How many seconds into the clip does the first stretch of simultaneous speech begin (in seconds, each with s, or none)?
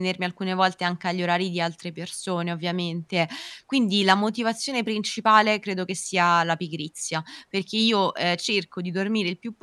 none